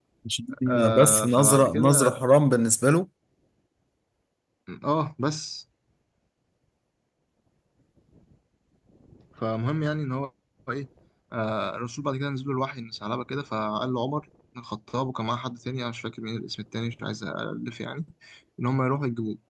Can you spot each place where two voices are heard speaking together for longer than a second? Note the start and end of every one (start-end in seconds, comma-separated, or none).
0.7-2.2